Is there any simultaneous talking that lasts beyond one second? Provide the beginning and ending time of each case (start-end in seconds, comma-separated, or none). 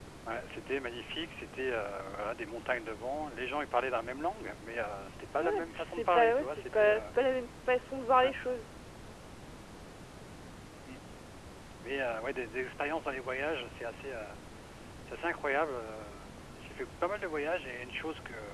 5.4-7.0